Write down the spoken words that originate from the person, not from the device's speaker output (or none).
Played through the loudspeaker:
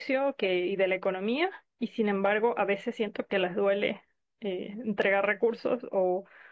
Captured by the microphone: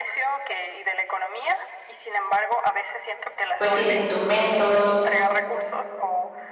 pues sí, de instrumentos,